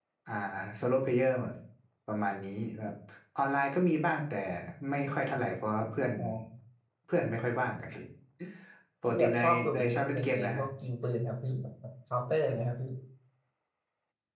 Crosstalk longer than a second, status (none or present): present